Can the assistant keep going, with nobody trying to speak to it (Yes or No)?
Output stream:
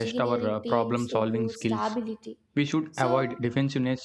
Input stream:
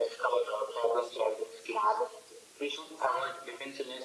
Yes